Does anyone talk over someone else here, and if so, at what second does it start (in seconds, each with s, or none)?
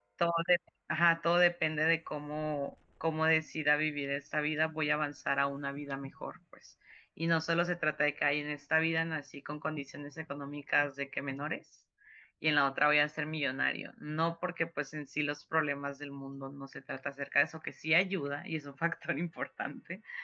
none